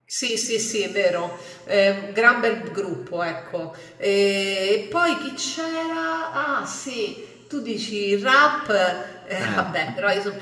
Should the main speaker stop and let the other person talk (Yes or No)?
No